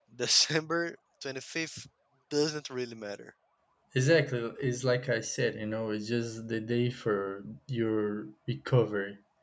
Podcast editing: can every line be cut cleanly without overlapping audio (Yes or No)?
Yes